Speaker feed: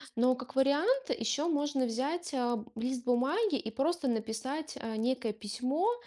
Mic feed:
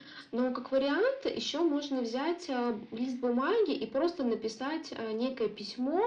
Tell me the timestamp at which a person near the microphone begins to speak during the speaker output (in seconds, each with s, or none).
none